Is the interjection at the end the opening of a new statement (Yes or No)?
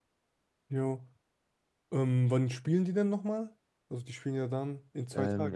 Yes